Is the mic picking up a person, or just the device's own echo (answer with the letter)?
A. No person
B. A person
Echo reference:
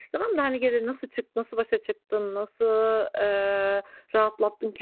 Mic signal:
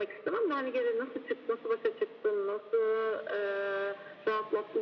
A